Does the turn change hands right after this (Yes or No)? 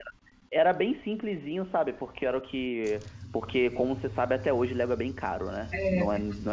No